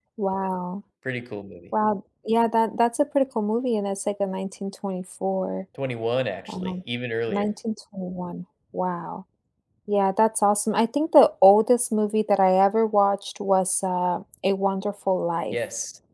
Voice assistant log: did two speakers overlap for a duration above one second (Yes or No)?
No